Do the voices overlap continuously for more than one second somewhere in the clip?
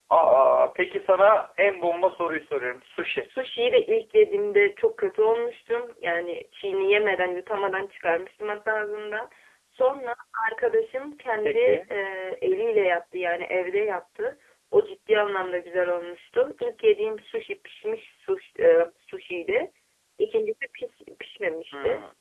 No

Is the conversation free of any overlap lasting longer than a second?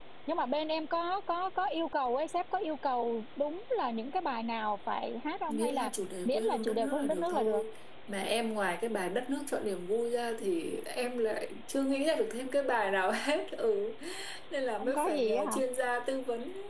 No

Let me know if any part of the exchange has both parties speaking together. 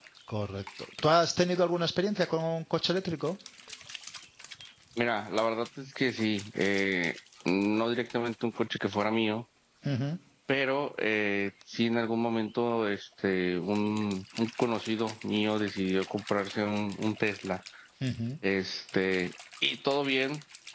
No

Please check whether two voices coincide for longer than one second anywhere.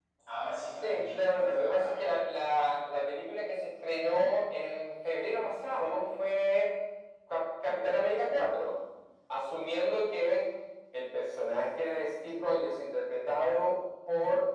Yes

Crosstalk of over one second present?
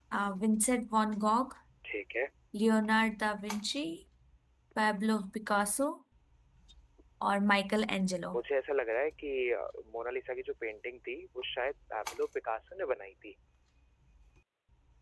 No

